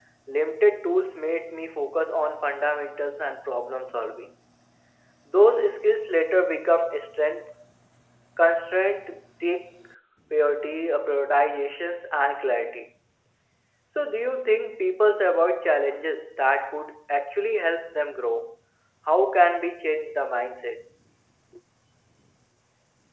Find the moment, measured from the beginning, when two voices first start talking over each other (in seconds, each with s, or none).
none